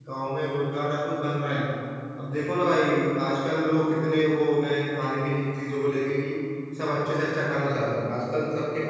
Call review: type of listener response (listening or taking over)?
listening